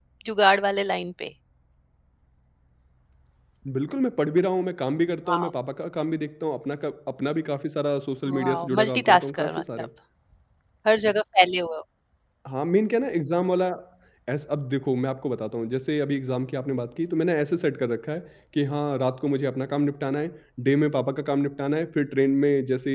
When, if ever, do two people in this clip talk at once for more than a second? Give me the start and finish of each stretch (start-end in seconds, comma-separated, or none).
8.4-9.6